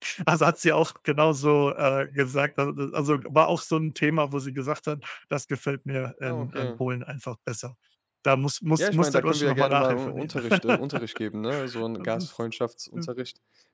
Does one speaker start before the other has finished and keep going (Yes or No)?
Yes